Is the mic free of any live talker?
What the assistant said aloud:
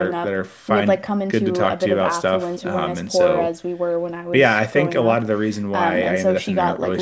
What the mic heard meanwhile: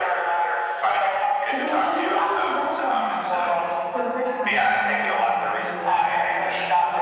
No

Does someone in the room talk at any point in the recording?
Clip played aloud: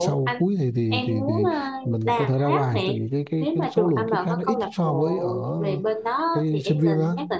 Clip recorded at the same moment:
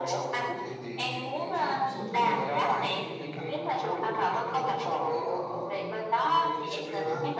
Yes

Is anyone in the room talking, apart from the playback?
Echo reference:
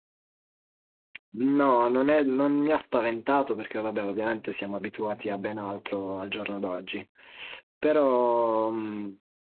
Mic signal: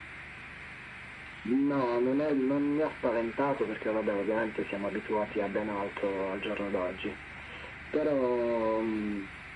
No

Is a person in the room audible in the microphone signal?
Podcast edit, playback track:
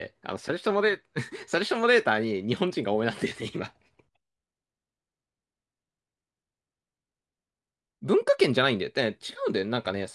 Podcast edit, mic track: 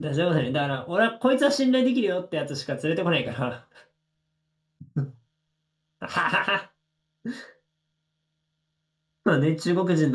Yes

